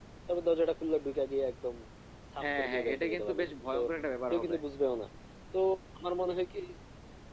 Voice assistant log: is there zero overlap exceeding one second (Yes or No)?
No